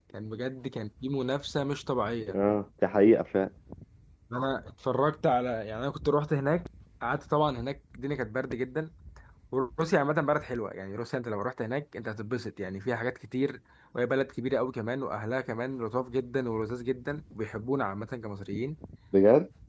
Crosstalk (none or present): none